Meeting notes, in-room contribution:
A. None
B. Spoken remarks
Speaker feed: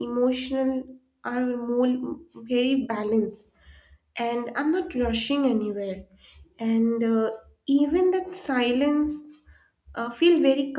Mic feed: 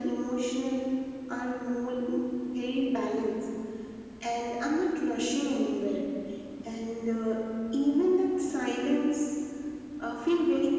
A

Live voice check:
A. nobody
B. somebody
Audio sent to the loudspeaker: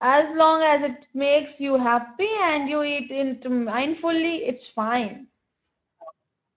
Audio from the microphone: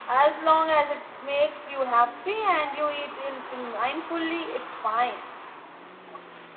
A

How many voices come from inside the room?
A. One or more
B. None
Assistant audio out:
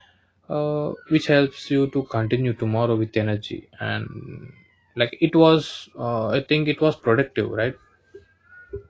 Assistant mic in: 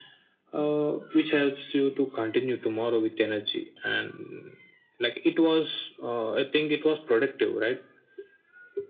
B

